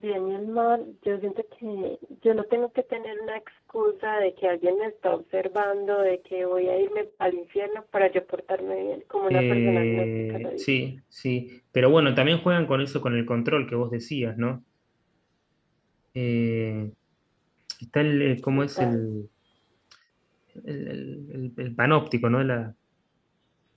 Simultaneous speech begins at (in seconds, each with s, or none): 9.3 s